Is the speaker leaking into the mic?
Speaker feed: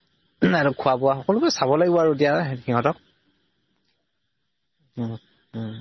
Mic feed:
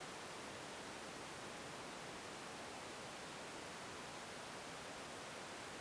No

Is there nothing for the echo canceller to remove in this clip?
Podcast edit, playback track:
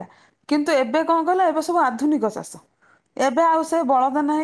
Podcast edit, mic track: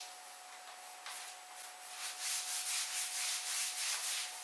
Yes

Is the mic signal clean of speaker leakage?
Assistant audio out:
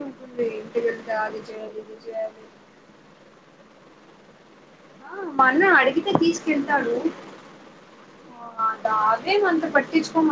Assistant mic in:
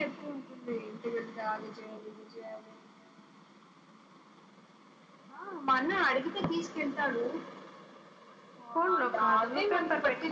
No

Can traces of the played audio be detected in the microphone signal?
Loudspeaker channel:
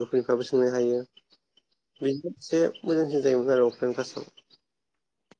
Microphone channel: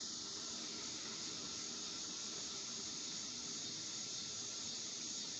No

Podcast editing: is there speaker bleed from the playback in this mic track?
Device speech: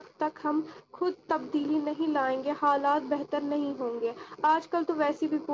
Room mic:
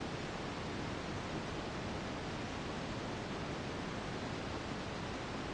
No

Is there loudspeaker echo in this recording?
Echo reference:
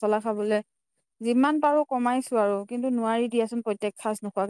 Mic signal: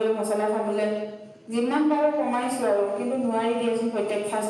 Yes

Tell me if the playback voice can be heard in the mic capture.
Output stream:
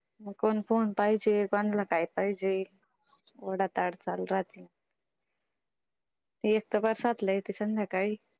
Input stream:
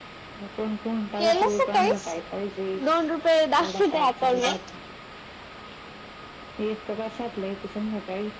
Yes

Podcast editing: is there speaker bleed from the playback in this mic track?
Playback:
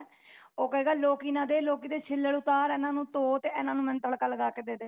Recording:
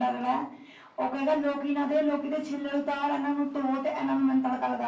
Yes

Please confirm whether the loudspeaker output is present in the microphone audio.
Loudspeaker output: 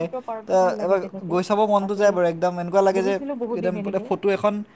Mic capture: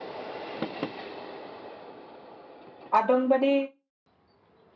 No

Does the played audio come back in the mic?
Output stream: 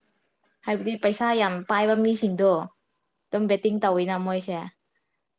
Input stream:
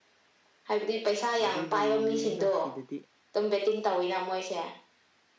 Yes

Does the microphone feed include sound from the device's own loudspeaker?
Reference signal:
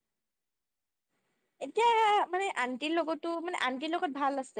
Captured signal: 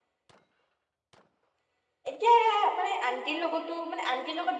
Yes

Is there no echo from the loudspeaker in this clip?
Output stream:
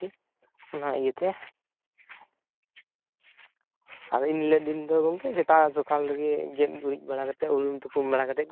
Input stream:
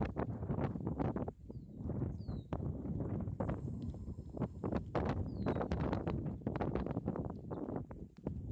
Yes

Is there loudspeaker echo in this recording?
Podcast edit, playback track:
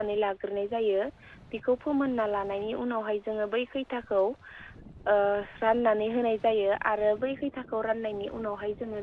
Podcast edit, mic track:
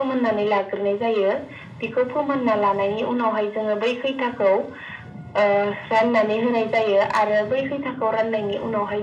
Yes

